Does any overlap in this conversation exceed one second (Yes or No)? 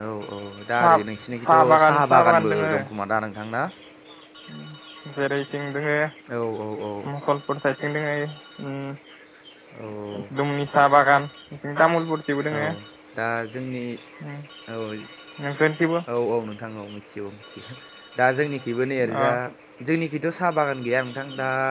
Yes